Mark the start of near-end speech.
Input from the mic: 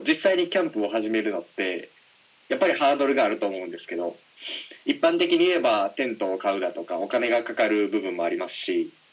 none

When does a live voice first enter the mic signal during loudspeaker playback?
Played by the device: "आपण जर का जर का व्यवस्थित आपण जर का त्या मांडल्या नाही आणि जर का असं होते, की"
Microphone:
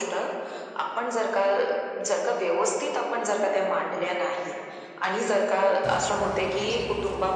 none

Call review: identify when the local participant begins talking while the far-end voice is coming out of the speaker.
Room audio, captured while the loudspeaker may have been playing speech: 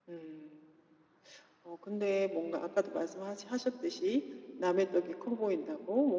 none

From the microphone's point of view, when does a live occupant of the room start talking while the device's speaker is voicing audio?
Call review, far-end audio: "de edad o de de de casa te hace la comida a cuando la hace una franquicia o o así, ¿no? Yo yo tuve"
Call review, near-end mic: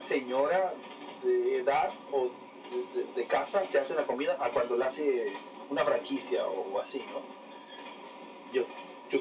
none

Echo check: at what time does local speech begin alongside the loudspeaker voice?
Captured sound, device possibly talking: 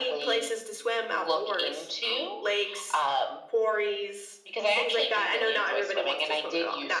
none

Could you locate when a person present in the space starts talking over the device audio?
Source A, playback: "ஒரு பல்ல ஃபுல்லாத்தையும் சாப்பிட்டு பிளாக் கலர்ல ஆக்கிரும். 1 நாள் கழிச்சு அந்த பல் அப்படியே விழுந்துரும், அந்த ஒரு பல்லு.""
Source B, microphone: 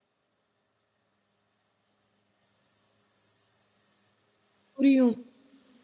4.7 s

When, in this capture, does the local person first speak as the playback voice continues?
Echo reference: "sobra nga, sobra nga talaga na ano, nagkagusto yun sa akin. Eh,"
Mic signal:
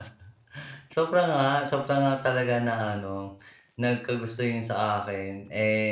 none

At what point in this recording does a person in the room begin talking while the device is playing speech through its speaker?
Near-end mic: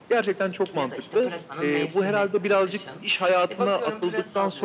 0.7 s

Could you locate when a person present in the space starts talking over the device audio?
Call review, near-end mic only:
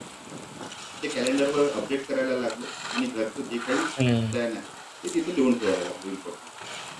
4.0 s

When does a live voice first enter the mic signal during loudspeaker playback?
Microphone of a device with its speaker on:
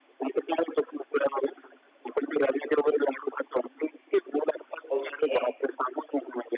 4.9 s

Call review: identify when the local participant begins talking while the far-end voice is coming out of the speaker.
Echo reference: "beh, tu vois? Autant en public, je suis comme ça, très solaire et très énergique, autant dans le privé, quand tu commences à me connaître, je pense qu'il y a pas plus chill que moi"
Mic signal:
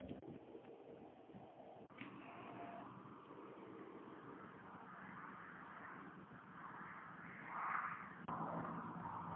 none

